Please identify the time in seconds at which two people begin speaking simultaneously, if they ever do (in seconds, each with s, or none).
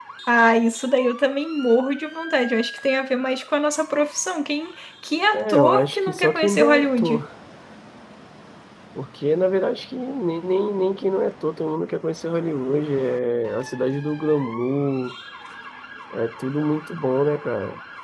5.3 s